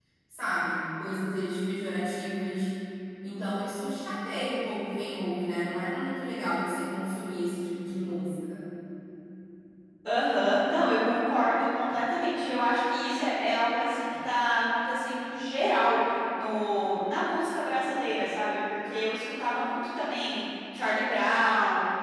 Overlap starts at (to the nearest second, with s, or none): none